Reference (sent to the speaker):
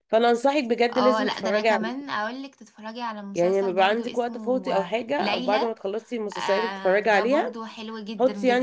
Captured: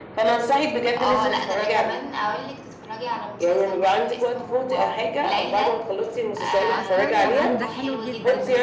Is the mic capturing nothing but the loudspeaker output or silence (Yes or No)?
No